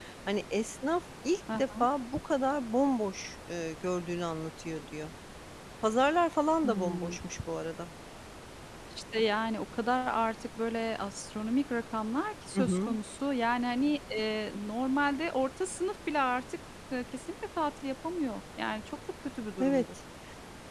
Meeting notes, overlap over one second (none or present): none